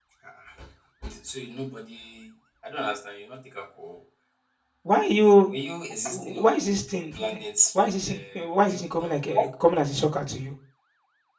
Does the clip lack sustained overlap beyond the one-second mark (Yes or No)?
No